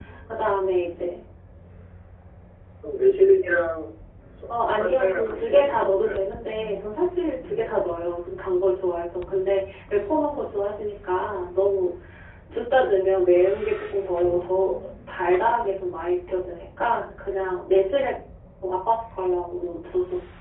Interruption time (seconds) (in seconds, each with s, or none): 4.7 s